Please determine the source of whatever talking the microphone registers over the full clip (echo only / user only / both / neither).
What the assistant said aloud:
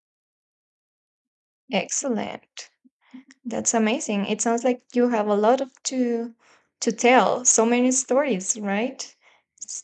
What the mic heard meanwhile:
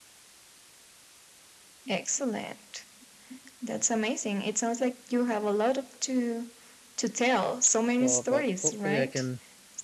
both